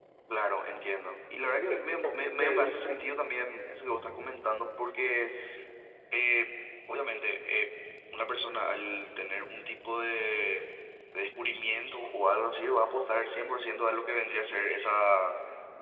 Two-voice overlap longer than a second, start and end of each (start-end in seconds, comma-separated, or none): 1.7-3.1